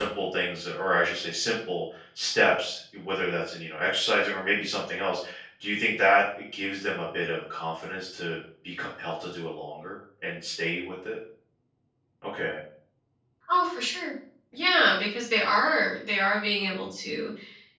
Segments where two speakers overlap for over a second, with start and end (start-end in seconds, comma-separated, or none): none